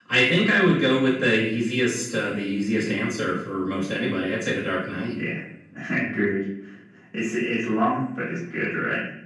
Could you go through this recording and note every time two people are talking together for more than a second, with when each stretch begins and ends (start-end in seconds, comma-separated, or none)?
none